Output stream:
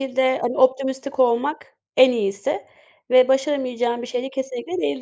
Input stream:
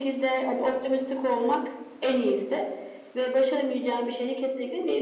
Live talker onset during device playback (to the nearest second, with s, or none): none